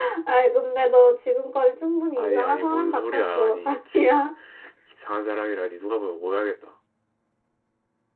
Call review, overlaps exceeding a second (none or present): present